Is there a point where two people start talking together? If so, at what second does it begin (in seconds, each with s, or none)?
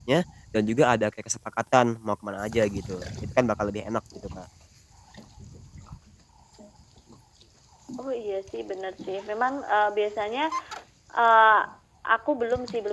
none